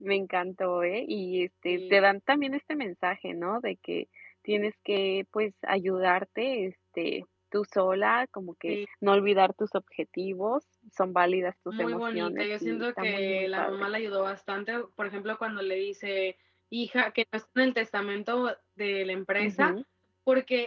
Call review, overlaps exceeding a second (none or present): present